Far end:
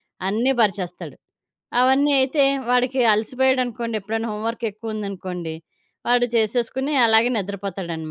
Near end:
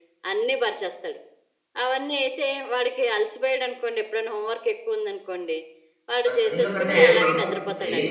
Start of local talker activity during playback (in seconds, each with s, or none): 6.3 s